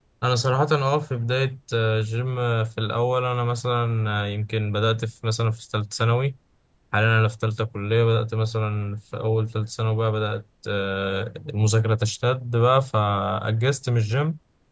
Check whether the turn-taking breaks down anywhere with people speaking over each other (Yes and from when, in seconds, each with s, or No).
No